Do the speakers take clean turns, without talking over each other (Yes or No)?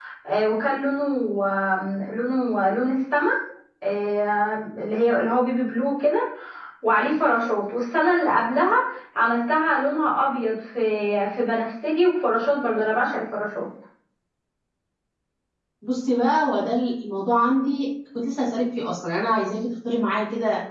Yes